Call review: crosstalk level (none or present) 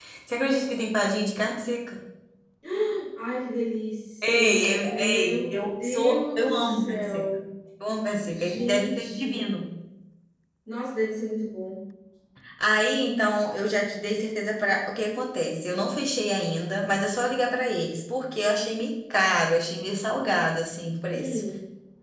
present